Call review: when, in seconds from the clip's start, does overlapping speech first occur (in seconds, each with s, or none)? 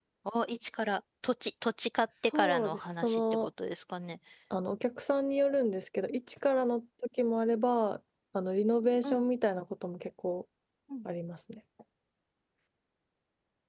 2.1 s